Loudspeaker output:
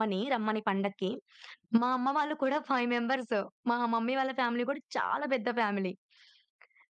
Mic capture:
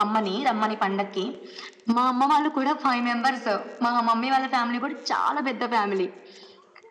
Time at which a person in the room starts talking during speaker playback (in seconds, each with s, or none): none